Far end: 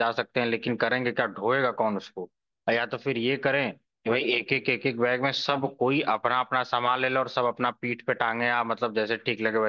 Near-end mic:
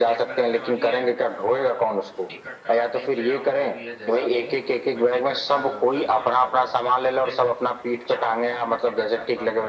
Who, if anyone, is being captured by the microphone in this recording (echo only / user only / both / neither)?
both